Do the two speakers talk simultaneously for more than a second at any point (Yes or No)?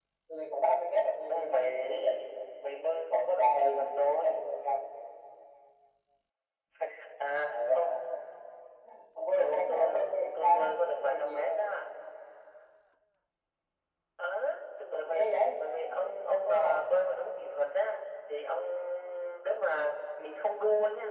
Yes